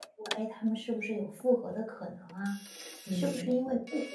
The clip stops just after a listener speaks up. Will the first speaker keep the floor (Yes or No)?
Yes